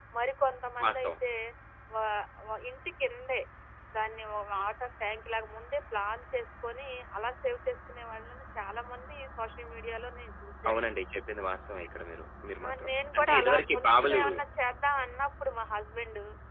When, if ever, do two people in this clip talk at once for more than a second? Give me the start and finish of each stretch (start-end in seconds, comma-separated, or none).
12.7-14.2